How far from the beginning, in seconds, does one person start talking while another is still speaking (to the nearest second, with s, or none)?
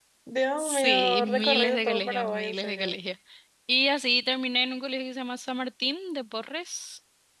1 s